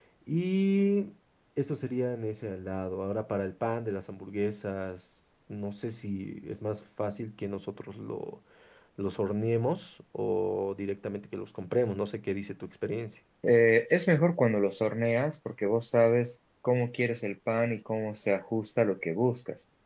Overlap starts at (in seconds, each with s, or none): none